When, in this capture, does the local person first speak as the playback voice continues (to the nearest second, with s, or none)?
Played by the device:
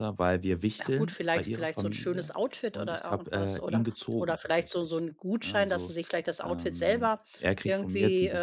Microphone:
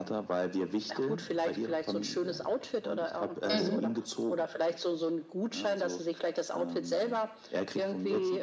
4 s